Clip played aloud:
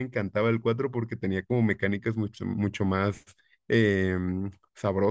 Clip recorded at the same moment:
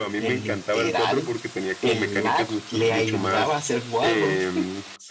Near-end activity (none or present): present